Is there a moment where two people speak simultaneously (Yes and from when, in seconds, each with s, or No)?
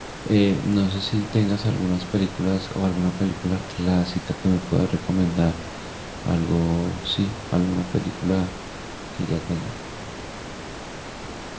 No